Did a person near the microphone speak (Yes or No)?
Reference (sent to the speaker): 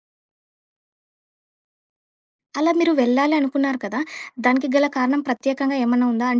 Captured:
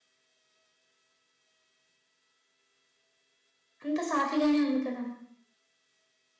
Yes